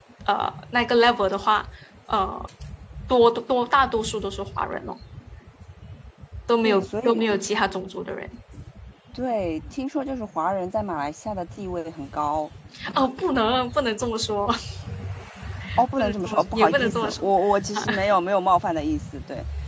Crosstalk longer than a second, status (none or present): present